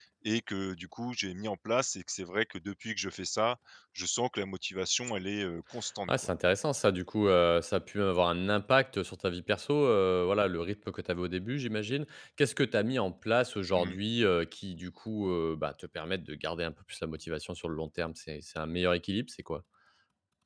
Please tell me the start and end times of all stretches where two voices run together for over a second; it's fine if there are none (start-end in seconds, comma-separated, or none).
none